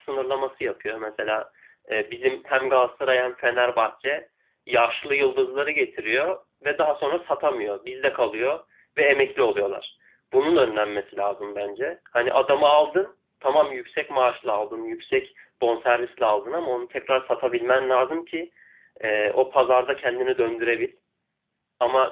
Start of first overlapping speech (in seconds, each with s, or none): none